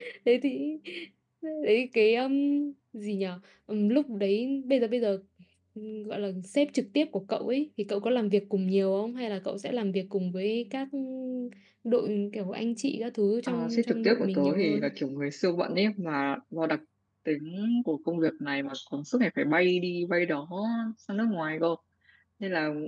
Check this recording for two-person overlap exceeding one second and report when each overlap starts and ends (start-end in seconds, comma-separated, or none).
13.5-14.9